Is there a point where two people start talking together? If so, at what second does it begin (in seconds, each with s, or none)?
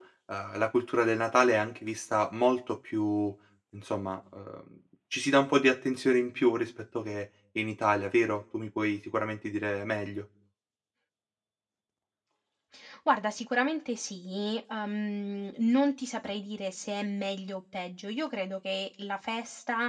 none